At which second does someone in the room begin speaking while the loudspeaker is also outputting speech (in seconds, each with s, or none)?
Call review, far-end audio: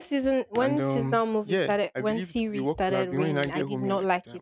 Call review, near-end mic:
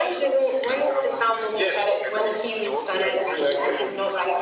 none